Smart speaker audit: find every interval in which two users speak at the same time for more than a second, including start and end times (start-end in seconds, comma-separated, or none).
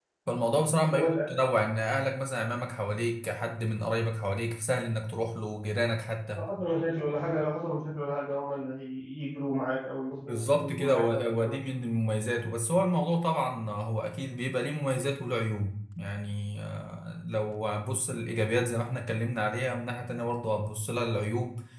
10.2-11.5